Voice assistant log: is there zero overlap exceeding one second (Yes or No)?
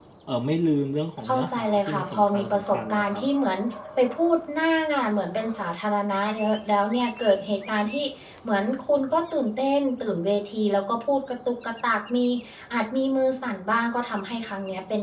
No